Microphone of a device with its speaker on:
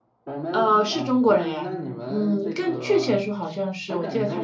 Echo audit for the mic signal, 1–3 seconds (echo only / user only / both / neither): both